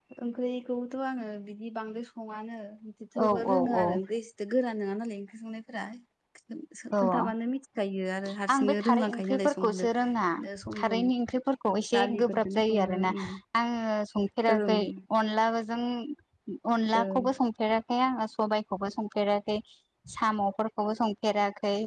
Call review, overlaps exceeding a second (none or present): present